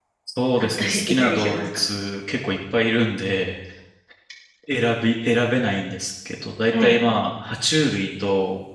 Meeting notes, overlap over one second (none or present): present